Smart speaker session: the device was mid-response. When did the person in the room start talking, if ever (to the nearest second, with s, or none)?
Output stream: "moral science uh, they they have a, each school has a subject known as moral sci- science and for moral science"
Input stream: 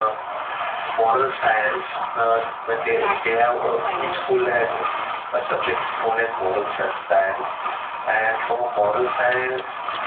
3 s